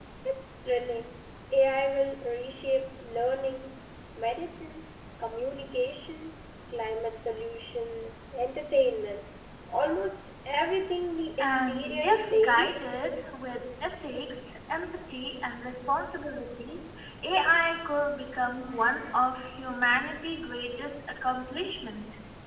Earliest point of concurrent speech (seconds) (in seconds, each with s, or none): 11.4 s